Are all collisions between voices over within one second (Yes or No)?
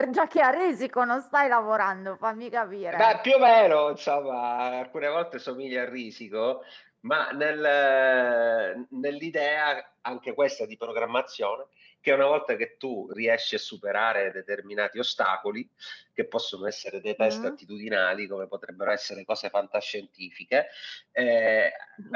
Yes